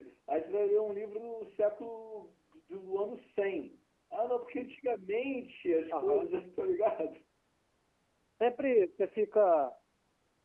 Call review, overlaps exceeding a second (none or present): none